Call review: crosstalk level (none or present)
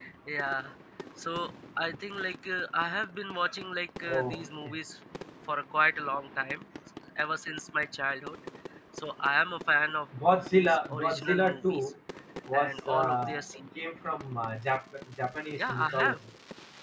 present